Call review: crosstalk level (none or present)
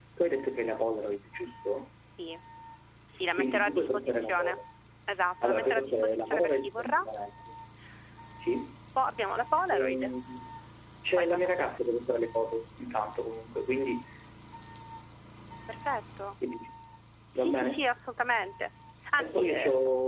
present